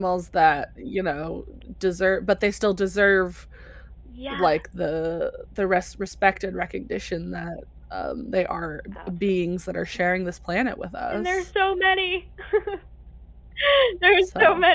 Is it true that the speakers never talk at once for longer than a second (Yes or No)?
Yes